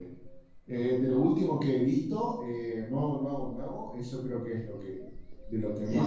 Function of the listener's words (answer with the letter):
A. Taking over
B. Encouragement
A